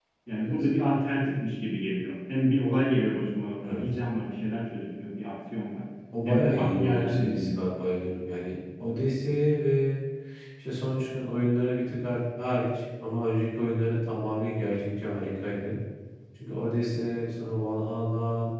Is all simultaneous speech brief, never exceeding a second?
No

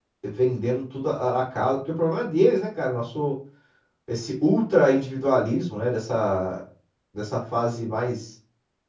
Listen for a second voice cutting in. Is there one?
No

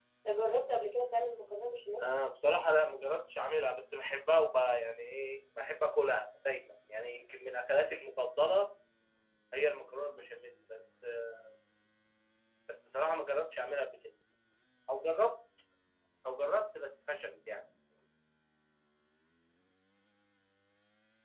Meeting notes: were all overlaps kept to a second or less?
Yes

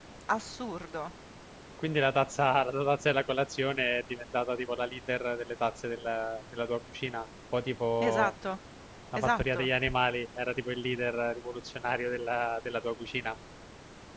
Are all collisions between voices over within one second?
Yes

